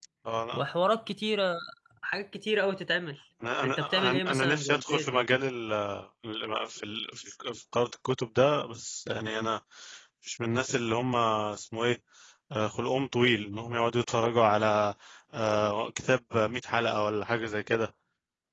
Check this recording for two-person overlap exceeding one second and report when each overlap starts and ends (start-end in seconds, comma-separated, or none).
3.6-5.3